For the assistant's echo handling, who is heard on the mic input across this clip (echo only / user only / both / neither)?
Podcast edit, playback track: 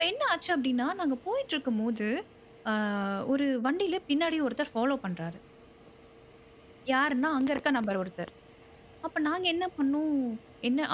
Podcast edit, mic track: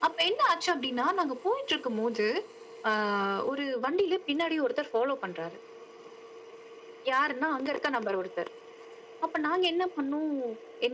echo only